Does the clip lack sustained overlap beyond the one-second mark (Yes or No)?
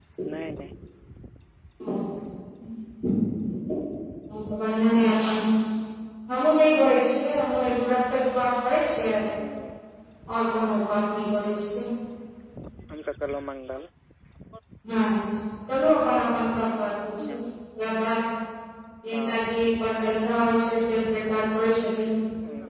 Yes